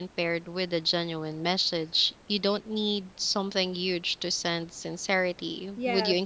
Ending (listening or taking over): taking over